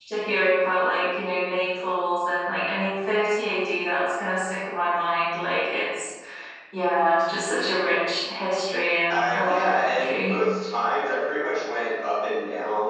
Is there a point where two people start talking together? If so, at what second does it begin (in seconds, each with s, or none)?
9.1 s